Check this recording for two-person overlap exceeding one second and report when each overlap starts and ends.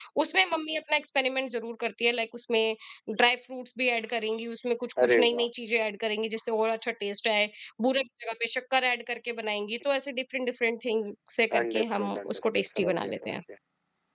11.6-13.3

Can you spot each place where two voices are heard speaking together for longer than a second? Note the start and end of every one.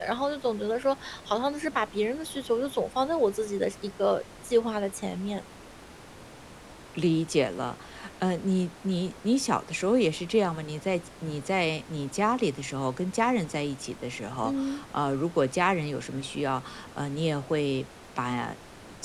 none

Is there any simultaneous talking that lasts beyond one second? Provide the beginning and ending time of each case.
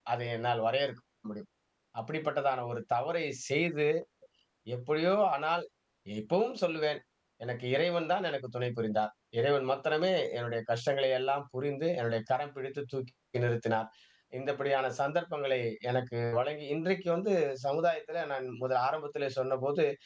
none

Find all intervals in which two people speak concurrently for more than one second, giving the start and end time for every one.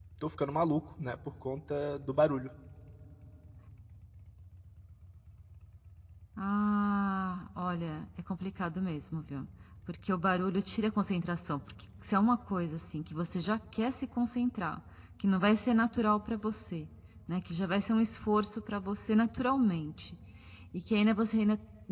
none

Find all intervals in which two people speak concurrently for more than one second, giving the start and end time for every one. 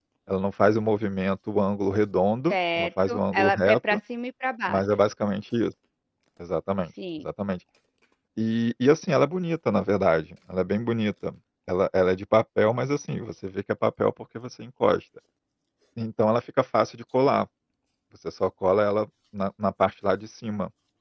2.5-4.0

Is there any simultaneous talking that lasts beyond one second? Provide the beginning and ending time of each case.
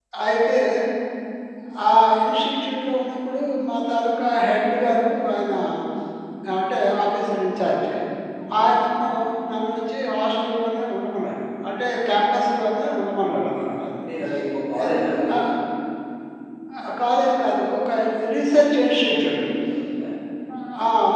none

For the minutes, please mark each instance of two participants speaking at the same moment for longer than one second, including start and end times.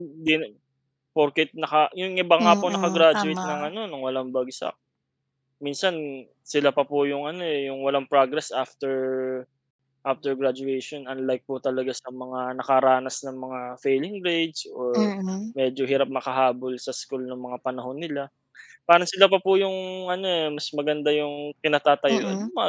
2.4-3.7

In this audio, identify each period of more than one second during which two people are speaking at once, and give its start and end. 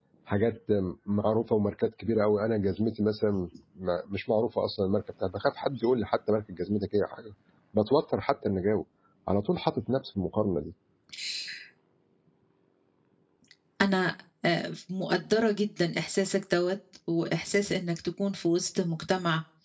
none

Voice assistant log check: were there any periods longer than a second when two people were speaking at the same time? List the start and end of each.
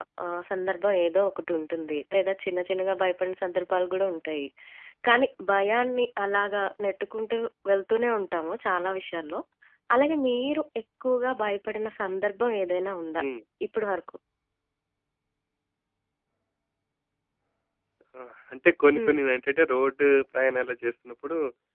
none

